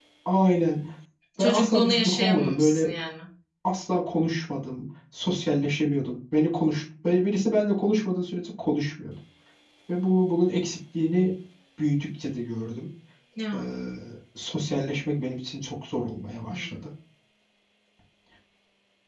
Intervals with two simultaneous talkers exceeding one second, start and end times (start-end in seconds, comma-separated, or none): 1.4-2.9